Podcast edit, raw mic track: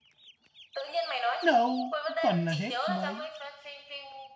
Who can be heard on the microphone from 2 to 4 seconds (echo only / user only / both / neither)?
both